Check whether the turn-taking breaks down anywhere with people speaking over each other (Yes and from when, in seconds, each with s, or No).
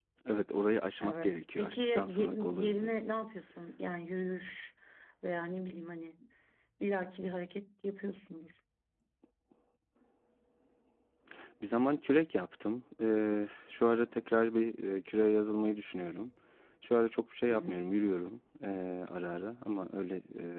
Yes, from 1.0 s